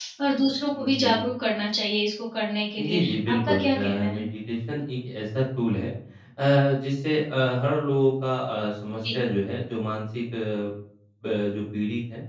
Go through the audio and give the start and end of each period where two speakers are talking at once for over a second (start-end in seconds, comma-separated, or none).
2.8-4.2